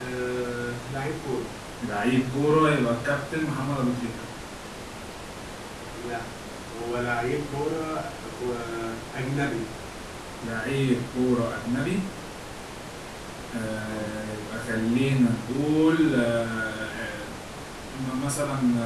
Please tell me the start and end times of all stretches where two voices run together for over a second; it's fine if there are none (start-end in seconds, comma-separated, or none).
none